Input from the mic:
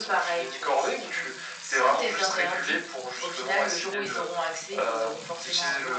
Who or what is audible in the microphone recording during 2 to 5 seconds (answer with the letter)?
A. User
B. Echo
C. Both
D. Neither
B